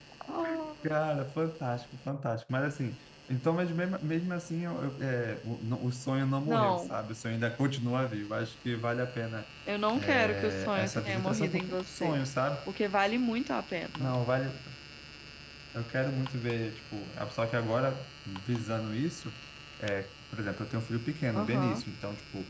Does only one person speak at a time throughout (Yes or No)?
No